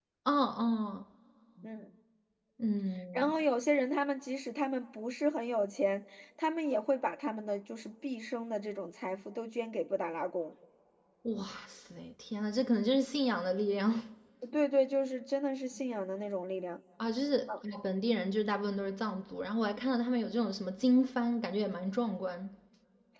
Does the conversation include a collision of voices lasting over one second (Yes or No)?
No